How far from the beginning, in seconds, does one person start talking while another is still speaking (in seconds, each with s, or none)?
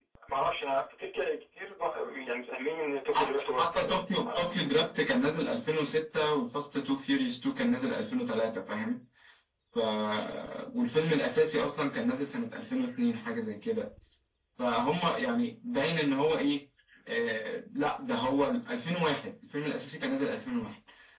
3.1 s